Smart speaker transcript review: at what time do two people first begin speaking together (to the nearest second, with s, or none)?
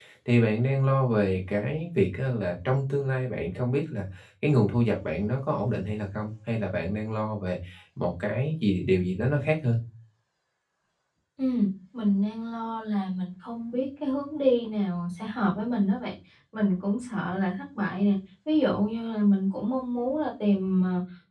none